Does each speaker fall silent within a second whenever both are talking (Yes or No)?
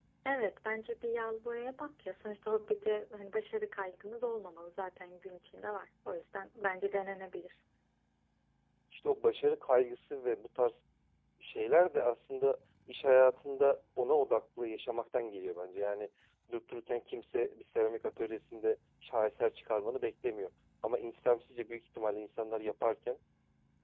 Yes